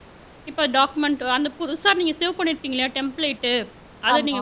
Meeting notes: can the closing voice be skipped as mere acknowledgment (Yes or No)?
Yes